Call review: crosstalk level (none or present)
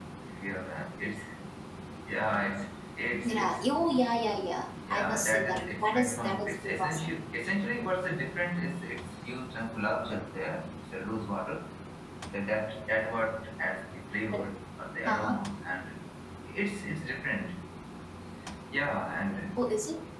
present